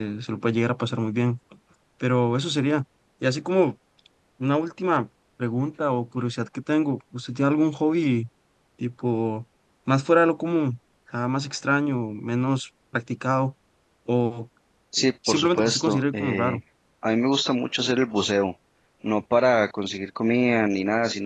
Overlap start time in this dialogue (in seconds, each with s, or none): 15.3 s